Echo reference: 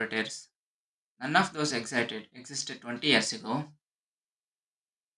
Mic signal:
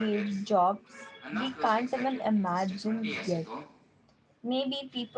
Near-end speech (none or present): present